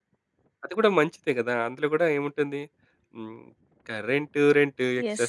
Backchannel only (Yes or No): Yes